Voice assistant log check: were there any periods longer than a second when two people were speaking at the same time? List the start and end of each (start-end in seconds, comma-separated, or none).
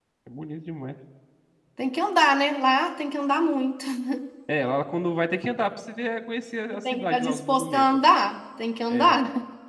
6.7-8.0